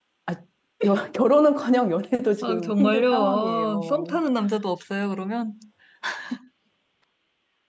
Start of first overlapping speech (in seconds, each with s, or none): 2.4 s